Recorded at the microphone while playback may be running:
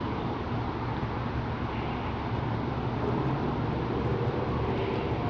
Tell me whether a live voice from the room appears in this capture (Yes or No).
No